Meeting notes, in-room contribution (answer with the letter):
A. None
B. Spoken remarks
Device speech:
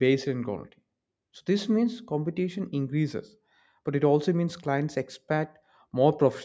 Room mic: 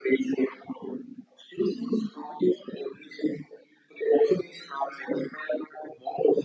A